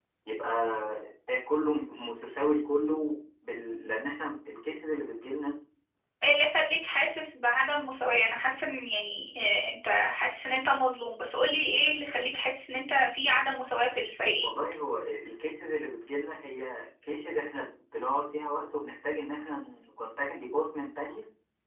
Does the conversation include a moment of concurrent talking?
No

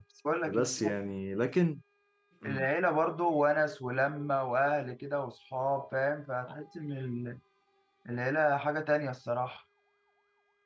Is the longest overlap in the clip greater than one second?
No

